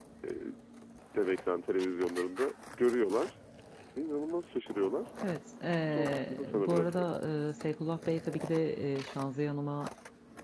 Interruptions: present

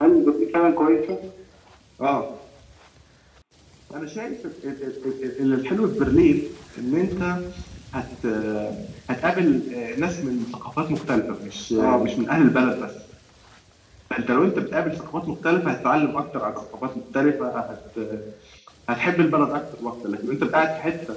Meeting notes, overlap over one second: none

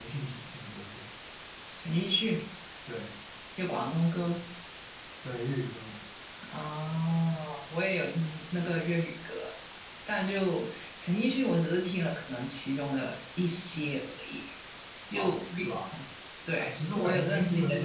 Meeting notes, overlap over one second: present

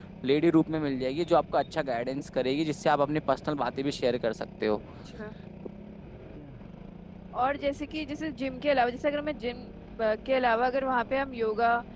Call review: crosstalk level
none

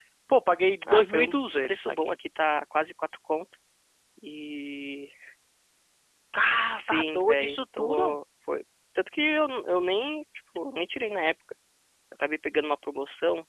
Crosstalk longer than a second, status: present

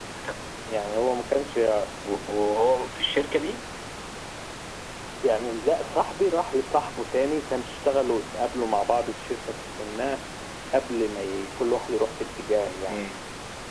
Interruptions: none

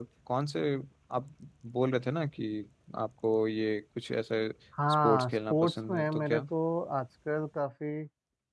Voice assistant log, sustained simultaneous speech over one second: present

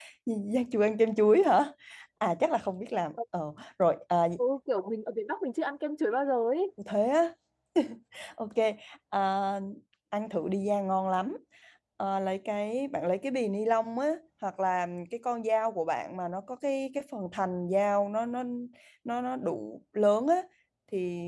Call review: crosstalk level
none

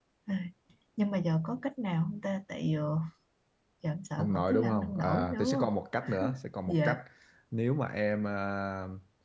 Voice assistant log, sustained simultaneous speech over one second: present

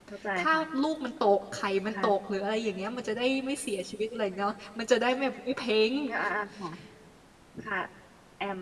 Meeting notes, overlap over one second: none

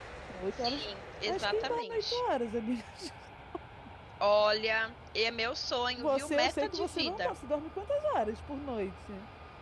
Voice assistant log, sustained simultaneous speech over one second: present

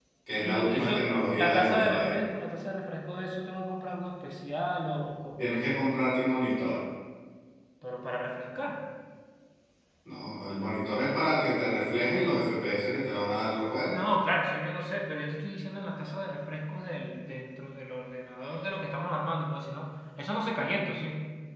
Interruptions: present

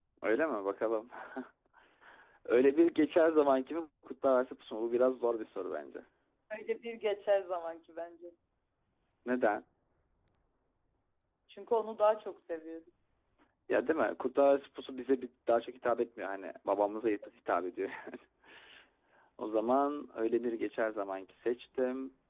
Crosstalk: none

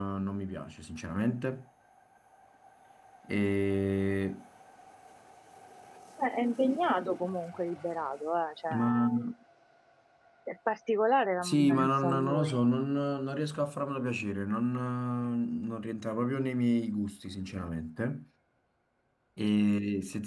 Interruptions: present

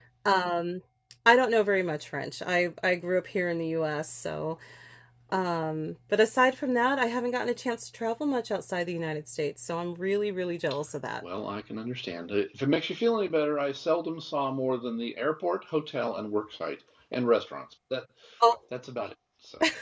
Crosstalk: none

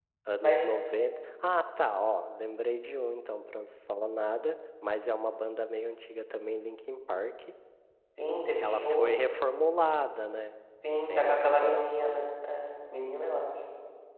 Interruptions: present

